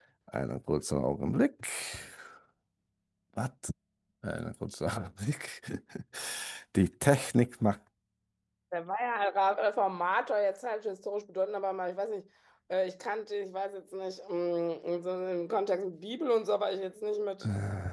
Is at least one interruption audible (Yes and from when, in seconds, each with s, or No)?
No